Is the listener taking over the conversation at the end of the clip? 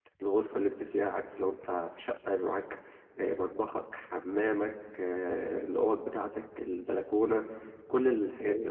Yes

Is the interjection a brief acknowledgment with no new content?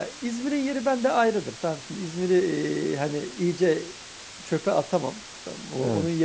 Yes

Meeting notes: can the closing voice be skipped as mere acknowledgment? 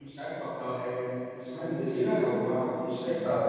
No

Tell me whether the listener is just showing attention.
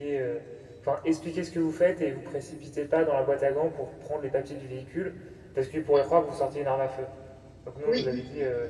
Yes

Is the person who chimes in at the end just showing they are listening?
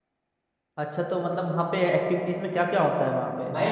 No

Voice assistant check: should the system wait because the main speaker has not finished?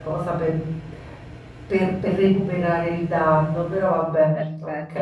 No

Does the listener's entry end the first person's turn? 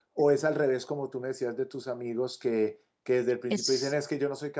No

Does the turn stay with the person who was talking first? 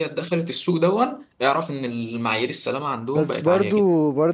No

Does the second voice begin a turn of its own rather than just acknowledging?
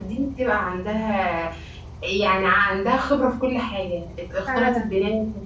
No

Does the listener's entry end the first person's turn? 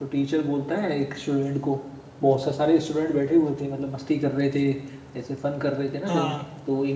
No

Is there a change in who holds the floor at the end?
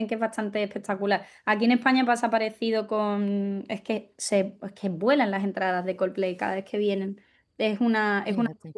No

